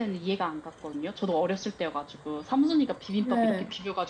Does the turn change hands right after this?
No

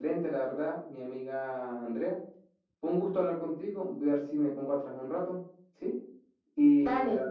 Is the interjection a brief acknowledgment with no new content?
Yes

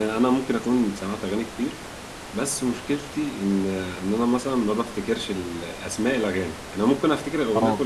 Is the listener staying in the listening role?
Yes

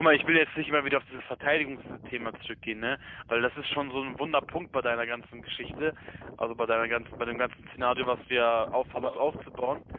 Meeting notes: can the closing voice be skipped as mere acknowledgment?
Yes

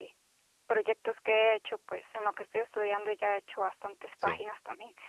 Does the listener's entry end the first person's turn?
No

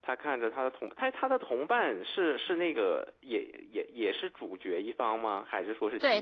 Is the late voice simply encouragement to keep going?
No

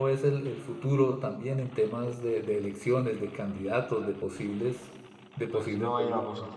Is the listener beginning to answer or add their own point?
Yes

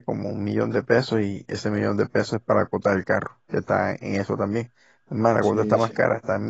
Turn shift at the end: No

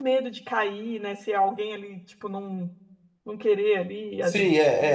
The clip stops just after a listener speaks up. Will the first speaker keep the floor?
No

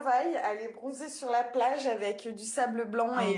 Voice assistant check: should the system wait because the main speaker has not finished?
Yes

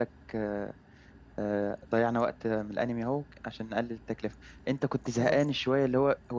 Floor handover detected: No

